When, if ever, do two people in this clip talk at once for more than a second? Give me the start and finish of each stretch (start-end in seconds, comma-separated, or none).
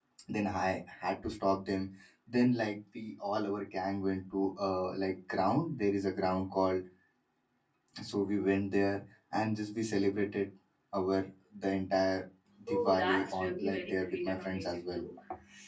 12.7-15.0